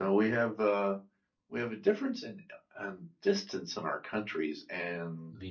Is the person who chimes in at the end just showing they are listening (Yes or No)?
Yes